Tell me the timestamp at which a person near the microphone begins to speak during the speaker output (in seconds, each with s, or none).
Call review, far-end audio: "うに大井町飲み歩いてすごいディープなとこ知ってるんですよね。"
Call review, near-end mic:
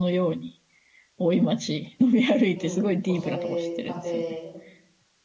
2.5 s